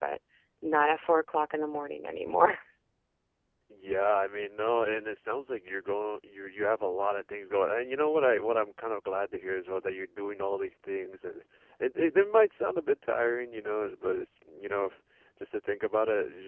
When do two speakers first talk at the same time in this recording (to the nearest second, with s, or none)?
none